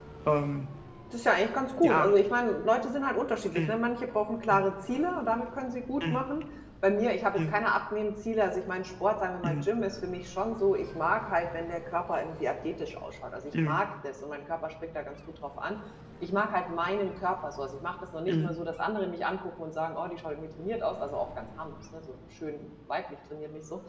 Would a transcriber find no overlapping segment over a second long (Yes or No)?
Yes